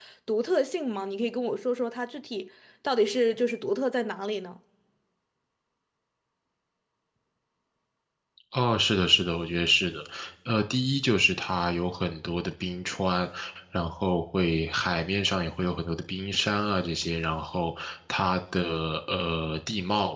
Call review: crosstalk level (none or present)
none